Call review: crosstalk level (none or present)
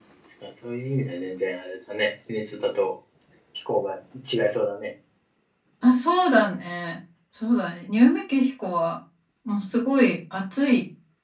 none